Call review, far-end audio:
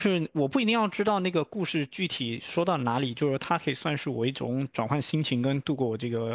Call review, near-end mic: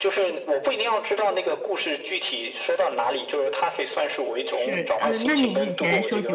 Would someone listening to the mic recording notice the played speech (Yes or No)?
Yes